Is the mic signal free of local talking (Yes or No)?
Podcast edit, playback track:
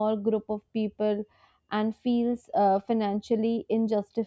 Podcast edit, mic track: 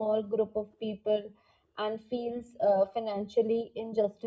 Yes